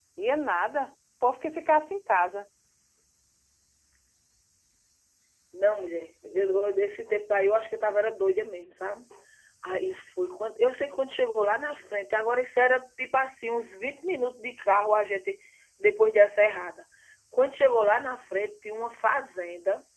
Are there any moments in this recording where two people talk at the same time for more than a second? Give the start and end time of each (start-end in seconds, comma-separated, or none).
none